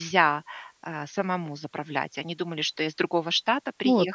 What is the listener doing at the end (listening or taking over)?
listening